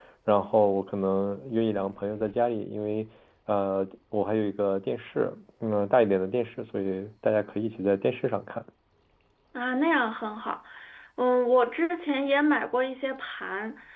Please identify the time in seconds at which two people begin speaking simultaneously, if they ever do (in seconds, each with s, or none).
none